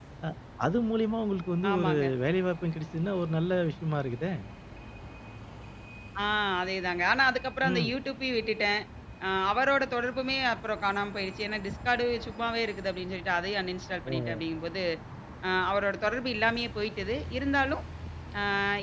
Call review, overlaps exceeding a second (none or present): none